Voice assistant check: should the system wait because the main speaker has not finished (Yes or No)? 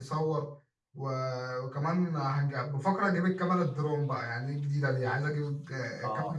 Yes